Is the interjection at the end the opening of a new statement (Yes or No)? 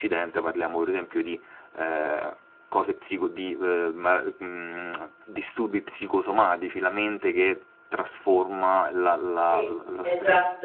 Yes